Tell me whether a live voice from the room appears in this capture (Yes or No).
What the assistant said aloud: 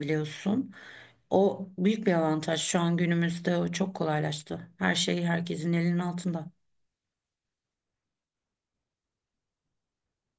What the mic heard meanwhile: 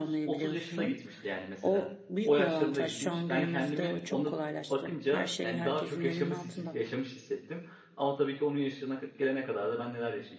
Yes